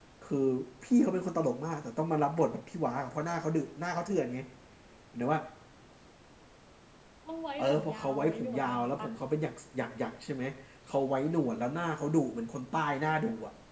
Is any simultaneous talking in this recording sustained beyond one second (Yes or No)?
Yes